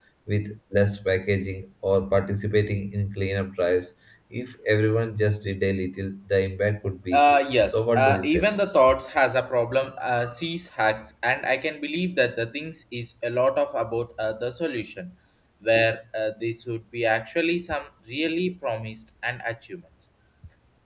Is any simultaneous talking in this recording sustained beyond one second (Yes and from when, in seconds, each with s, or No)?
Yes, from 7.1 s